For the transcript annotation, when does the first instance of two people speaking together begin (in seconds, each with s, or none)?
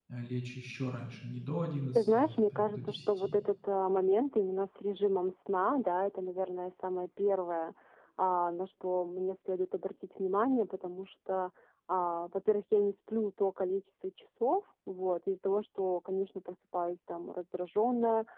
2.0 s